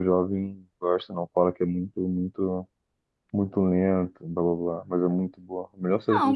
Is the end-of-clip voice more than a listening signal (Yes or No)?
Yes